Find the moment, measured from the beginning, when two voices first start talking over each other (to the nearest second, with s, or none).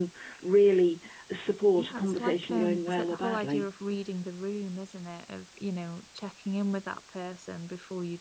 2 s